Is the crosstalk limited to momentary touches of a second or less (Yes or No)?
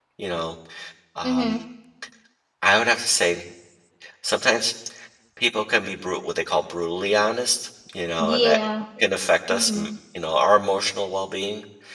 Yes